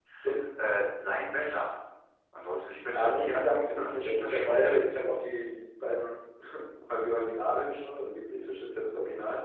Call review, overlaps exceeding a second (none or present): present